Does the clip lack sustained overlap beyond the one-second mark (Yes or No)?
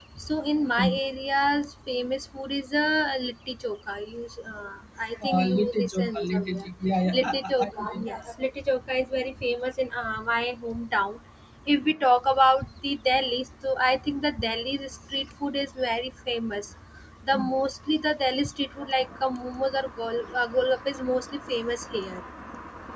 No